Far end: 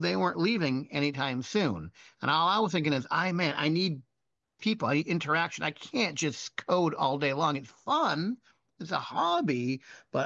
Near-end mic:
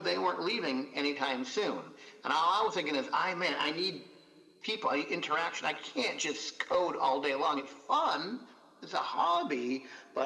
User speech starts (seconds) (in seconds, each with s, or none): none